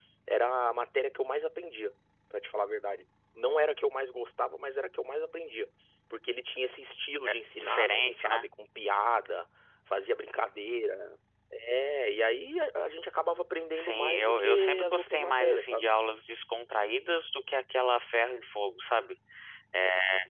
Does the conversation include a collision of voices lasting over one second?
Yes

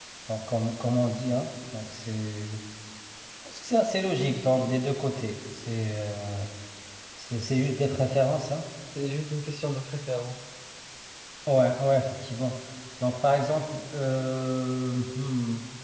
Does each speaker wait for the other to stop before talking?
Yes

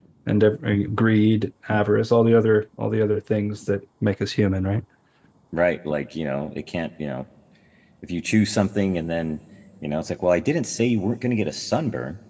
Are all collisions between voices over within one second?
Yes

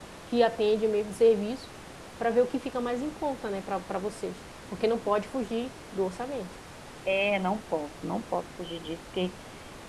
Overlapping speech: No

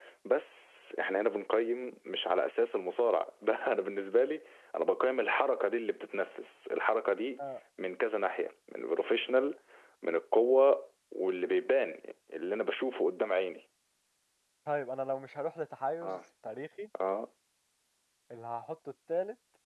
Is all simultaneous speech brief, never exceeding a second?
Yes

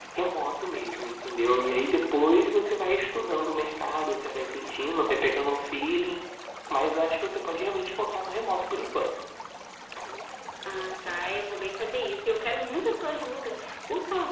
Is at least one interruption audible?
No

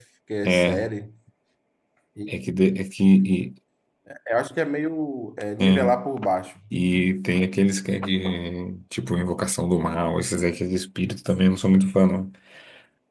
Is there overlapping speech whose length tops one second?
No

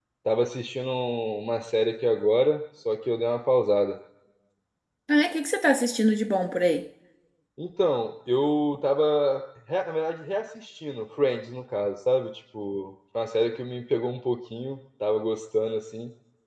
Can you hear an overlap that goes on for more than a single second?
No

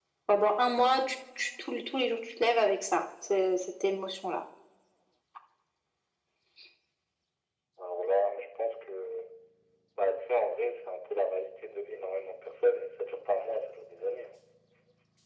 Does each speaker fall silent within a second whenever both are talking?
Yes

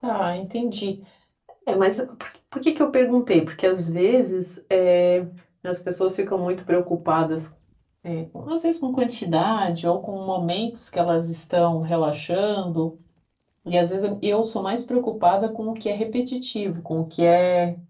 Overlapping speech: No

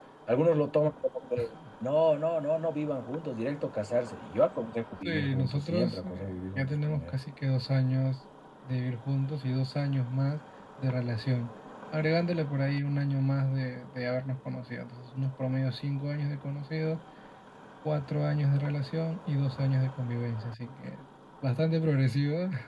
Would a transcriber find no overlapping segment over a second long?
No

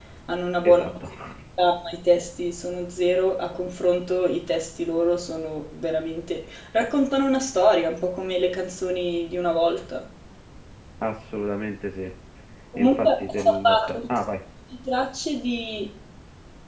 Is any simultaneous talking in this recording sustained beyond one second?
Yes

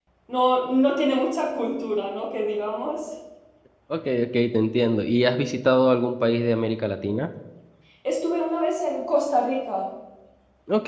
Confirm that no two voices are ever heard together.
Yes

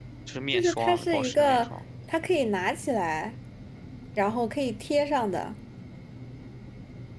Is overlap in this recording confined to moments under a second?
No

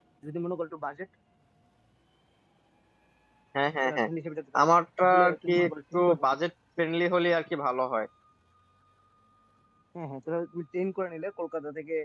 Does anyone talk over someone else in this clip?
Yes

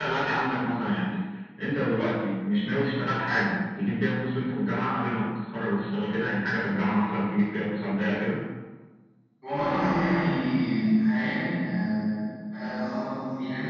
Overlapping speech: No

